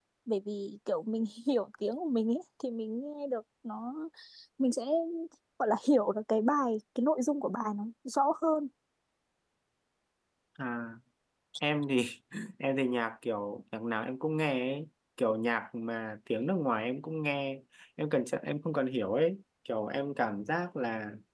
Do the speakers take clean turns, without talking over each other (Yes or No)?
Yes